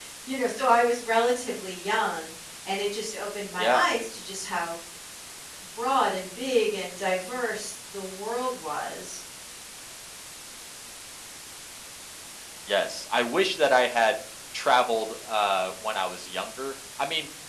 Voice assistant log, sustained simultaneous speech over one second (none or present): none